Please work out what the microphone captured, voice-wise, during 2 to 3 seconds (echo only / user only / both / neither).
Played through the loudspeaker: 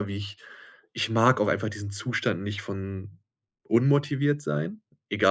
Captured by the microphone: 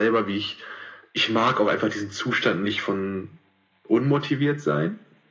echo only